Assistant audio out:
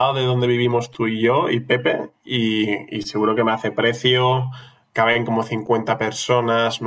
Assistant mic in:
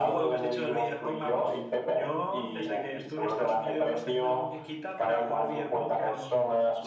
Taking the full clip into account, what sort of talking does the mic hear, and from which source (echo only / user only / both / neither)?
both